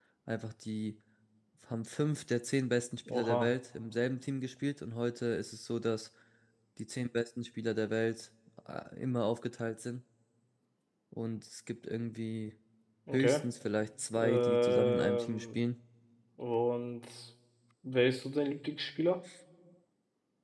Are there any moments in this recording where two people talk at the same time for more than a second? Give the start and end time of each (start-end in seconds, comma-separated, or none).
14.2-15.6